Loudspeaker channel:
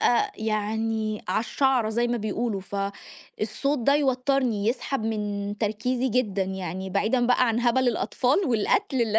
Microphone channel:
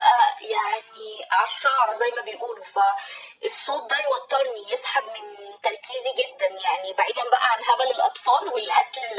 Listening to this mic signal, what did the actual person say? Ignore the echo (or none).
none